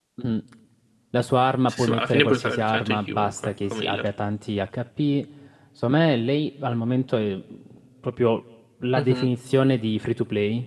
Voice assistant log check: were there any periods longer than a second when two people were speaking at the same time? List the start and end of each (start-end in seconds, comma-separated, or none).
1.7-4.1